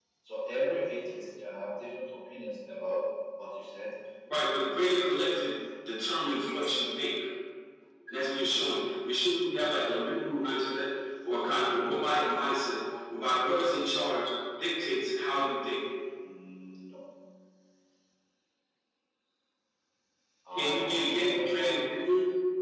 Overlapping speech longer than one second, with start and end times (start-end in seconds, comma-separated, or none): 11.5-12.8, 20.6-22.1